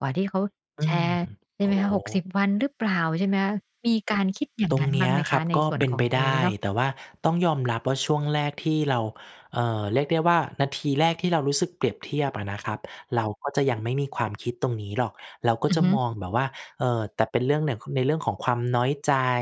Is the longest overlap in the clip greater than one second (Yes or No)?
Yes